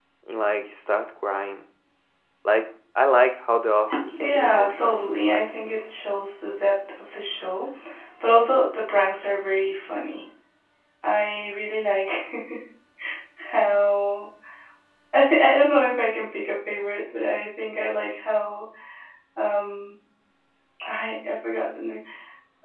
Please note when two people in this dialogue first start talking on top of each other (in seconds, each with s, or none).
4.2 s